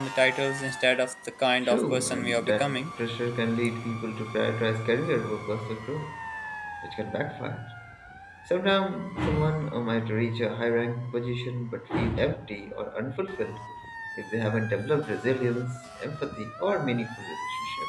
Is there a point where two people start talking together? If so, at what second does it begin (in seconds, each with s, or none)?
1.6 s